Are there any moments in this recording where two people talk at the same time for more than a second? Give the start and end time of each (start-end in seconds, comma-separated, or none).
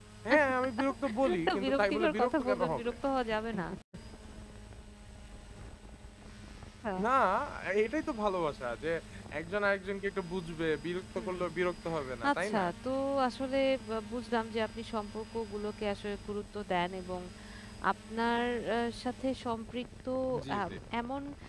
1.5-2.9